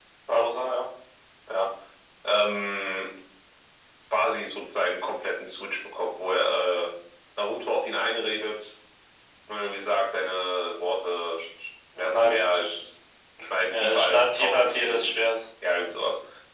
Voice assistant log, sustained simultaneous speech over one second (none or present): present